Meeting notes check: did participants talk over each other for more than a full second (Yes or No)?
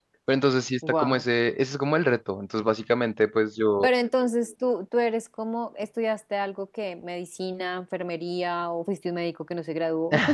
No